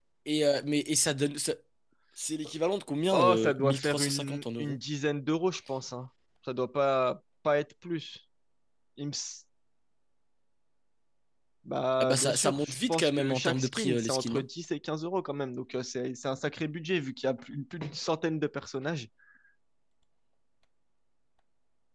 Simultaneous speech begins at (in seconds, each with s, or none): 3.1 s